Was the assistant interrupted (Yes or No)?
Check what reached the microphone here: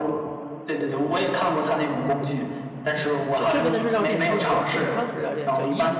Yes